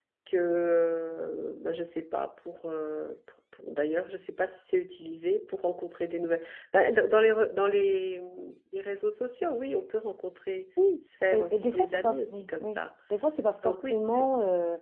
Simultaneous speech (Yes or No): Yes